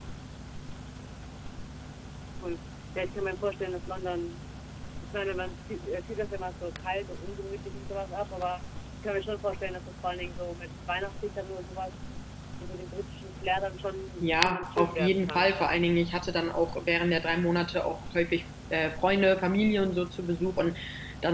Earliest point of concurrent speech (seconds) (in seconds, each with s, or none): 14.2 s